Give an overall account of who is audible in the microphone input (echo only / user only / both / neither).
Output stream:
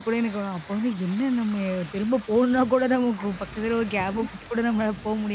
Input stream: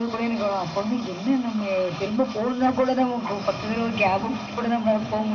echo only